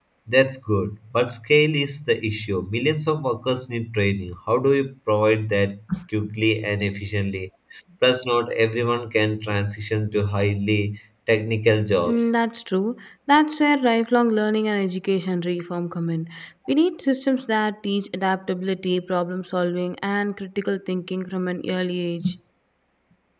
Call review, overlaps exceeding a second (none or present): none